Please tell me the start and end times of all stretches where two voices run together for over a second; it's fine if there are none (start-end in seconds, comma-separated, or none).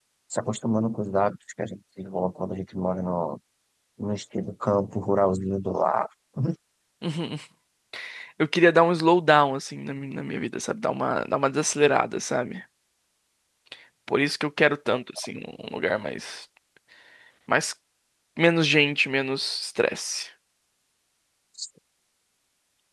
none